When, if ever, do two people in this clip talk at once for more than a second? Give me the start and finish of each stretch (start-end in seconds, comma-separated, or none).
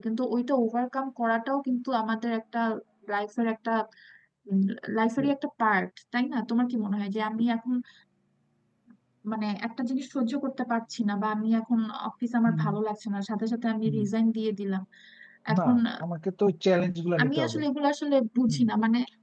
none